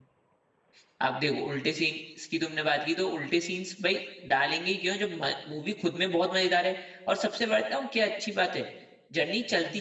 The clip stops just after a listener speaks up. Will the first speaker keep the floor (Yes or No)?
Yes